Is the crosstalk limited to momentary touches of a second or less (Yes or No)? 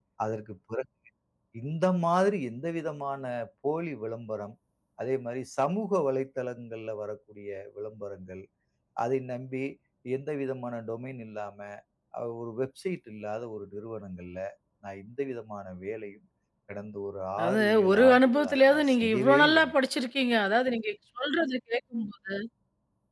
No